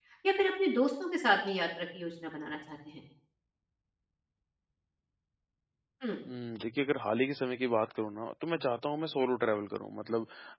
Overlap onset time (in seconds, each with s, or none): none